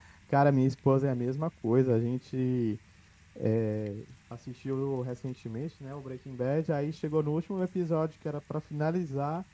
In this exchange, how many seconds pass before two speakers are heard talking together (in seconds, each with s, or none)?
none